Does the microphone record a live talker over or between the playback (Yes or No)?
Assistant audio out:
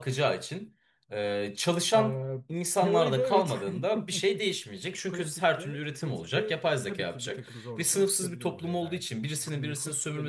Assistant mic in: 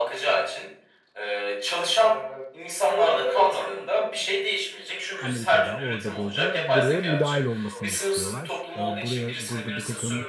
Yes